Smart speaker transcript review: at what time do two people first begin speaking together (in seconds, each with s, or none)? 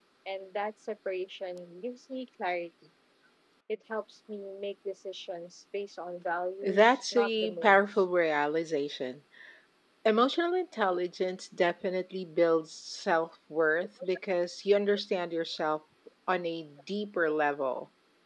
6.6 s